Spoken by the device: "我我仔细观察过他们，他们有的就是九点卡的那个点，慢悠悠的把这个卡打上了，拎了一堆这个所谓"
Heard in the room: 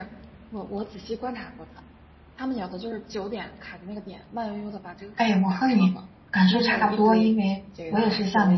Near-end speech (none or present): present